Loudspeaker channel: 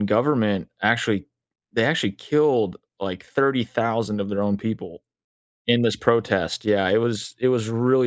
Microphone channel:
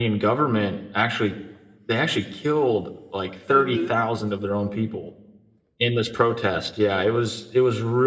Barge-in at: 3 s

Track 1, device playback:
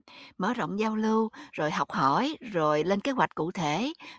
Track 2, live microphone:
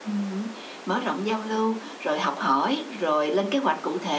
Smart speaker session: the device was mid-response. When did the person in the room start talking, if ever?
none

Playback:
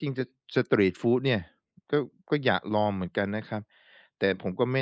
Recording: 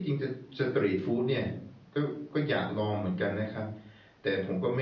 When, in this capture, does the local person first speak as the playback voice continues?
none

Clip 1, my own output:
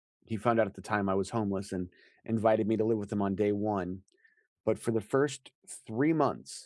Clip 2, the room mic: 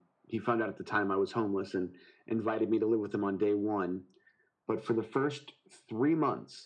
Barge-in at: none

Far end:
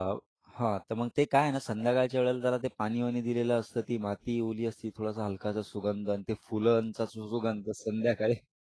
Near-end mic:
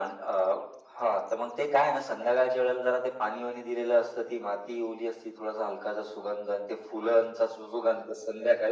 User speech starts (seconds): none

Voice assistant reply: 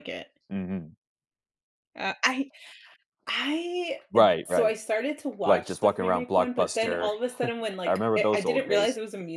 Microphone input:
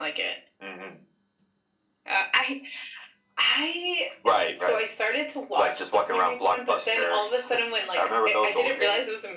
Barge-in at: none

